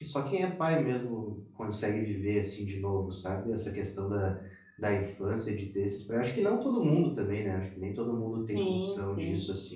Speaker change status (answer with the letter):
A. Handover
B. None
B